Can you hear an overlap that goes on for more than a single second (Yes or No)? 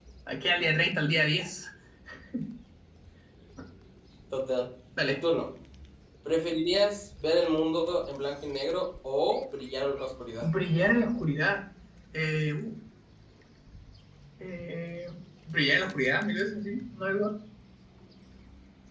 No